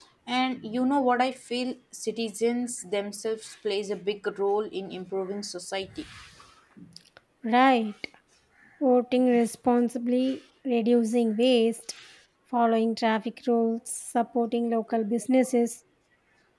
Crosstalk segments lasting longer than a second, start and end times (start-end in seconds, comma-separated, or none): none